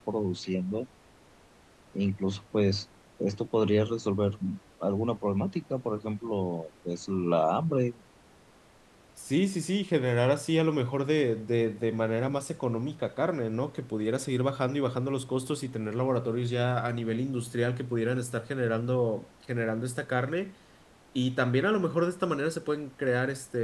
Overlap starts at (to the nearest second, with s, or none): none